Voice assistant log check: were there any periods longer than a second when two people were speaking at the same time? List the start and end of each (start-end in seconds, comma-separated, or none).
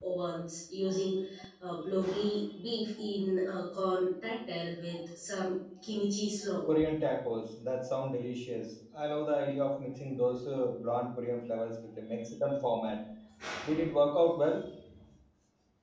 none